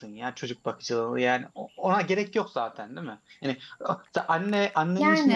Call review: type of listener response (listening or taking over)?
listening